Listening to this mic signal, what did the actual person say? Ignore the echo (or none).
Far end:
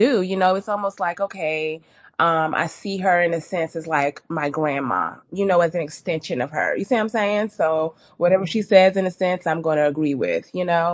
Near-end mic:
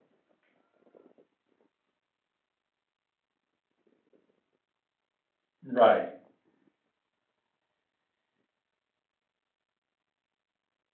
Right.